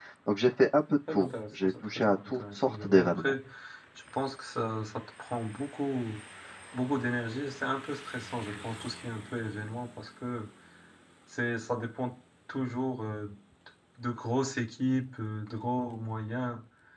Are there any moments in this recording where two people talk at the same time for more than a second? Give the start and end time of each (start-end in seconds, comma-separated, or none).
1.1-3.3